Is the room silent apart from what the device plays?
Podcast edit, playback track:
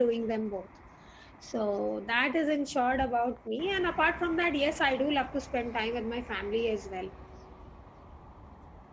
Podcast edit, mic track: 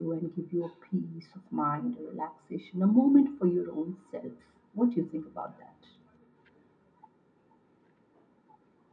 No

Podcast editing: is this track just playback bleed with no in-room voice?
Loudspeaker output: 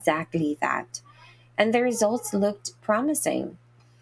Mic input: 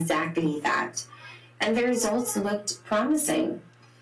Yes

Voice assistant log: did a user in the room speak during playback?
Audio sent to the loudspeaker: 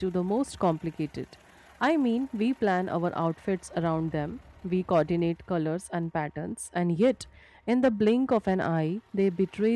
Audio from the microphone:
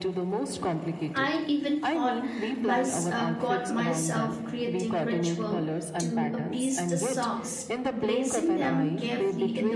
Yes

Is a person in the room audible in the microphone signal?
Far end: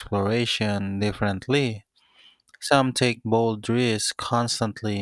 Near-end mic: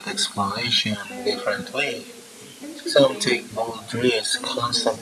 Yes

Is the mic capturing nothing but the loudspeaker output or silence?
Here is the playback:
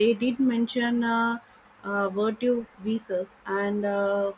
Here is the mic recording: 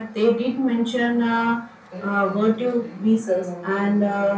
No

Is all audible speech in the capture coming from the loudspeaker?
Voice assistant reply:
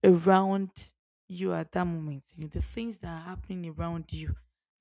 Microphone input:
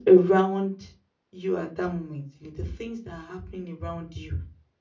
Yes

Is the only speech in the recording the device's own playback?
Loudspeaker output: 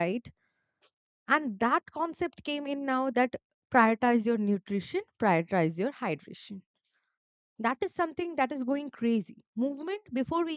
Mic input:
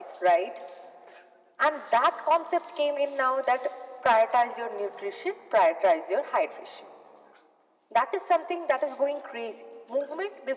Yes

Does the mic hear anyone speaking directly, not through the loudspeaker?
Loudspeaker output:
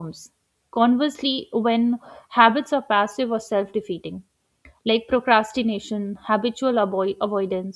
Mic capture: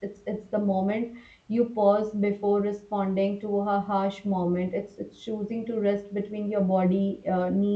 Yes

